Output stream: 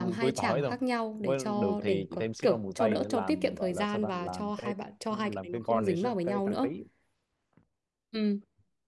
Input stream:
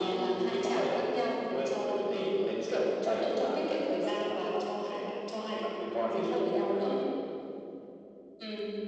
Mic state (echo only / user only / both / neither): echo only